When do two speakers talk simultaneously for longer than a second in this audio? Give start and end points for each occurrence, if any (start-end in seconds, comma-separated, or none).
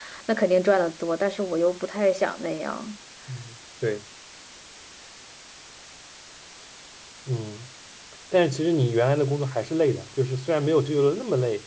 none